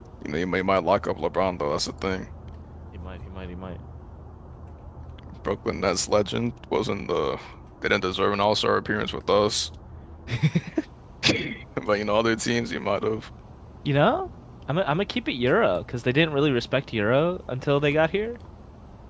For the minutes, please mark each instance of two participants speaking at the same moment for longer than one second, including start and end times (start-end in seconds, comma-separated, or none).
none